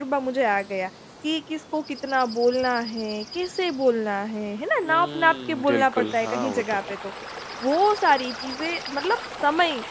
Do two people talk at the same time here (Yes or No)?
Yes